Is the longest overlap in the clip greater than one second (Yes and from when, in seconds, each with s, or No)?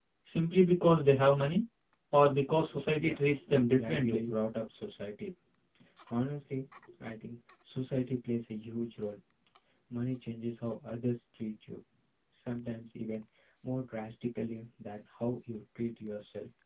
Yes, from 2.9 s